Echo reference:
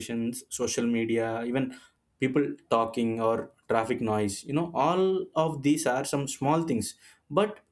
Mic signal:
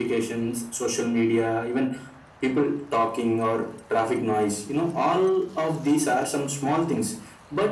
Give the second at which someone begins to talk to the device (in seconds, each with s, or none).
none